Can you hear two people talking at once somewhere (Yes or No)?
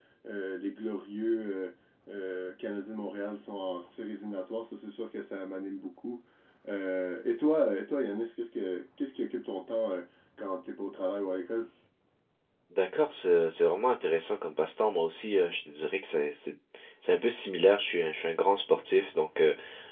No